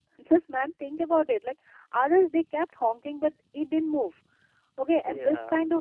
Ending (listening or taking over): listening